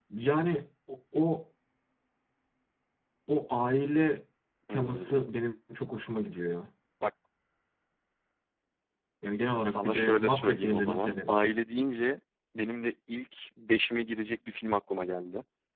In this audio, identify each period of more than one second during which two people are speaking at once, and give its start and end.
9.6-11.3

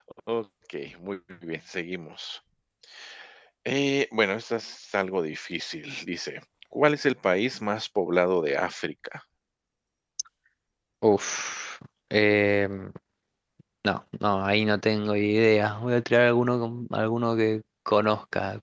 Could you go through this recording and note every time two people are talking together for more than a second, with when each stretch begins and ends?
none

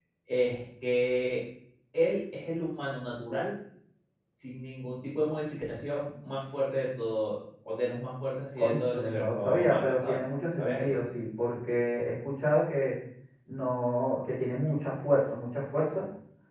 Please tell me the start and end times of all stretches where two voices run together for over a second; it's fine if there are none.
8.6-10.2

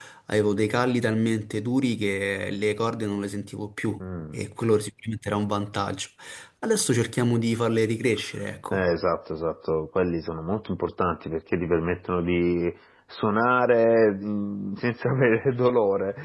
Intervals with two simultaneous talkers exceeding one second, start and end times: none

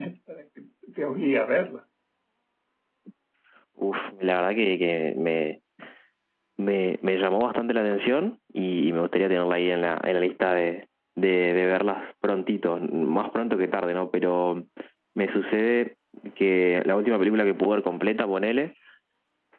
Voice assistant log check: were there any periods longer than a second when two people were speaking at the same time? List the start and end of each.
none

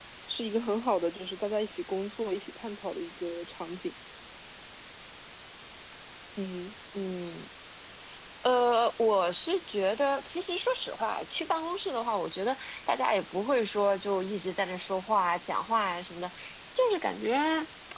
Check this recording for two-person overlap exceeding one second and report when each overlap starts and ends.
none

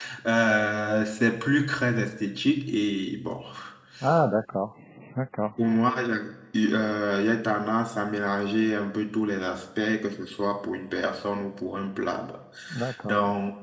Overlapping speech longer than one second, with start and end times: none

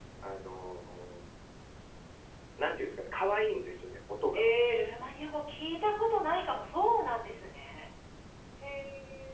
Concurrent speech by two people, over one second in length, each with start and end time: none

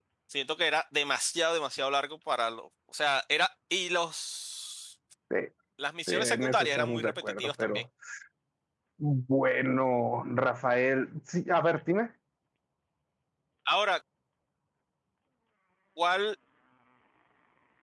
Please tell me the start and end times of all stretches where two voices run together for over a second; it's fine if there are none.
6.1-7.8

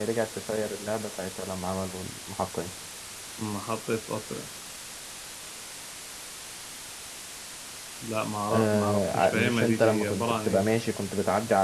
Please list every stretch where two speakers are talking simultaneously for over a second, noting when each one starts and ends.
8.5-10.6

